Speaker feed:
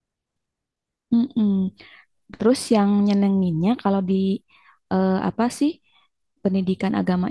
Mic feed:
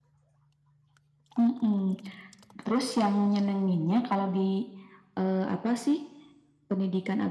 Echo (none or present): present